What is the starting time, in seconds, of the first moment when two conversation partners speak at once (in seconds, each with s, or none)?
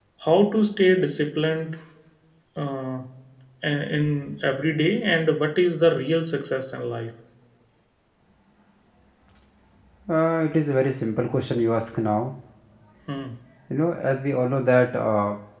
none